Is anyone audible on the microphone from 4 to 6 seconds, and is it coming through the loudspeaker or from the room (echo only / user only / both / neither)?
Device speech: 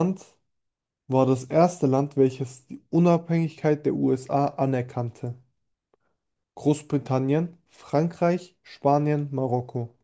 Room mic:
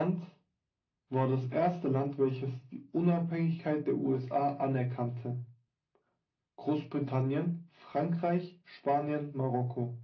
echo only